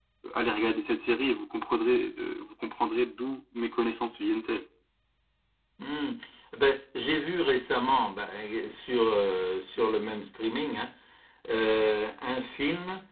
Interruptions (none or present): none